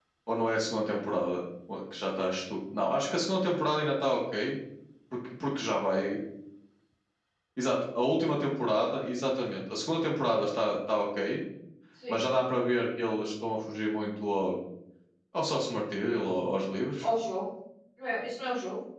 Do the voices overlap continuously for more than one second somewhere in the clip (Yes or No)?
No